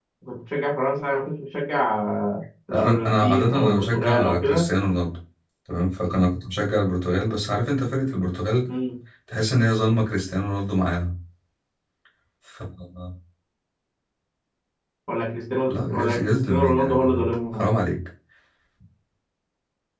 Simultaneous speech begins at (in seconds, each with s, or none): 2.7 s